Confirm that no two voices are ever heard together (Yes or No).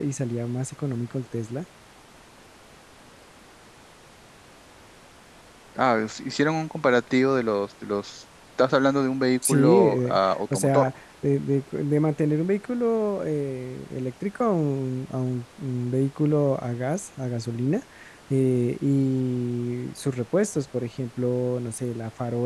No